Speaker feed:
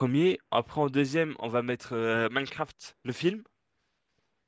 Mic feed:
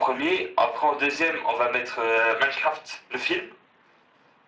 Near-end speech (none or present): none